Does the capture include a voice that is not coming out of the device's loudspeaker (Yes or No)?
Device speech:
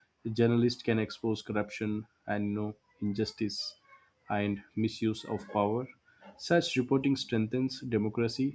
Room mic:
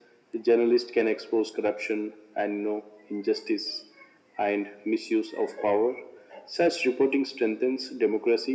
No